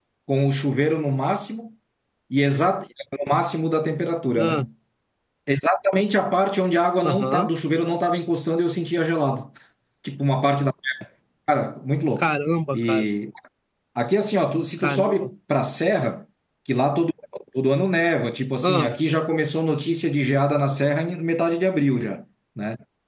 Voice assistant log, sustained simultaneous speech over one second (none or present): none